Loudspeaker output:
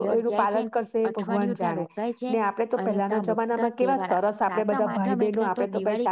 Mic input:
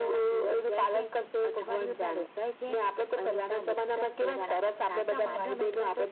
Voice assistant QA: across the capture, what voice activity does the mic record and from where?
echo only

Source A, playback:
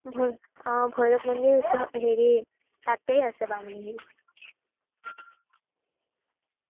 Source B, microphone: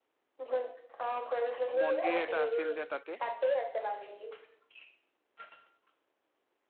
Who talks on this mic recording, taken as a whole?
both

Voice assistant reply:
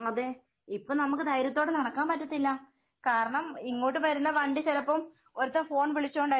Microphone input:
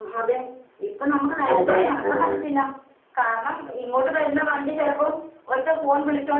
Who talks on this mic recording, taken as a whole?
both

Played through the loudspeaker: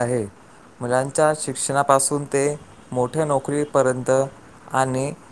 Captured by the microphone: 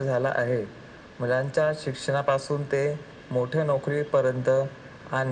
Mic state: echo only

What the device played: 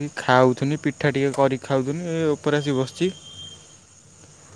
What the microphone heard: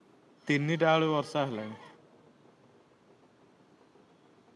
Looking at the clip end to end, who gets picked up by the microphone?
user only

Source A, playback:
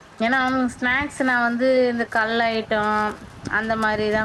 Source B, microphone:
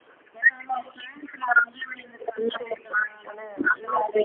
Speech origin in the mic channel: both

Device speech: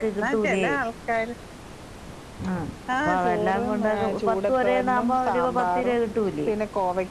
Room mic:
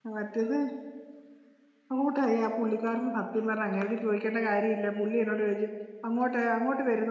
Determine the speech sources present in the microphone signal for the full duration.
user only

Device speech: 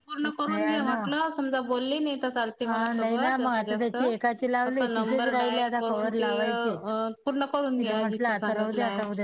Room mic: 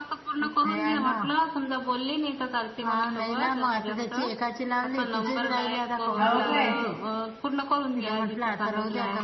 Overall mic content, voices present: both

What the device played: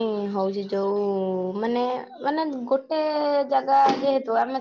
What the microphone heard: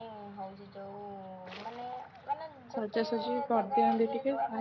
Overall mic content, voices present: both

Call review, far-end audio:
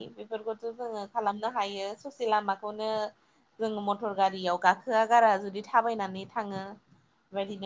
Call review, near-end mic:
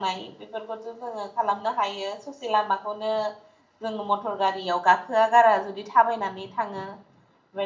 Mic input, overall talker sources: echo only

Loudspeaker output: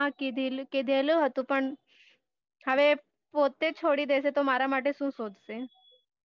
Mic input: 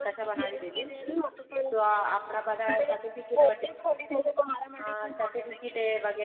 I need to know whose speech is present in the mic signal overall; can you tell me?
both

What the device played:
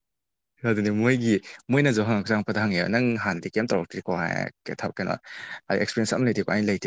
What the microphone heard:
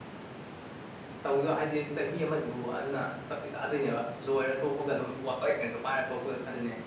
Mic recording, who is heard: user only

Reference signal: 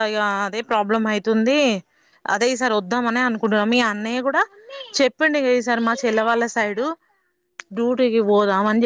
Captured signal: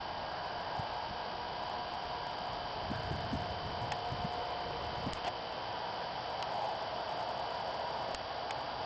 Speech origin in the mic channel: neither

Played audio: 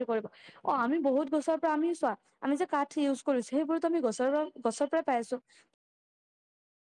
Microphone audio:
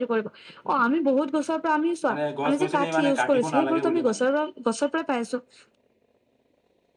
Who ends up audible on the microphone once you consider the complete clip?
both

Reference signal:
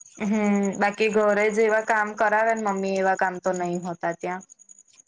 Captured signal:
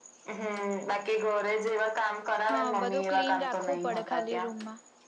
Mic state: both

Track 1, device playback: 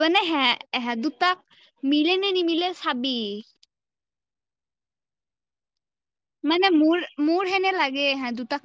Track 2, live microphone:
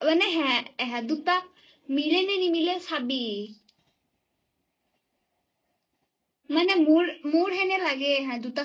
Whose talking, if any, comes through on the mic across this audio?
echo only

